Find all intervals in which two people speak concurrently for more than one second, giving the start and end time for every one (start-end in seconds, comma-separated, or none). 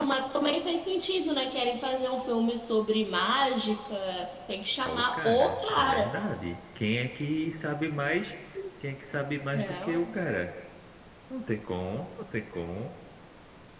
4.8-6.1